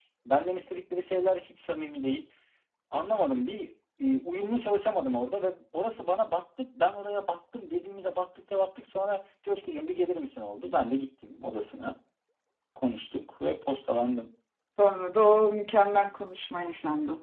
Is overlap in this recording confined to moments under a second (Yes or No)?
Yes